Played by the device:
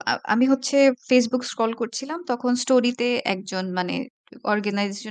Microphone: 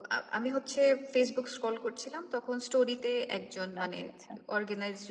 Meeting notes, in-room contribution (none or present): present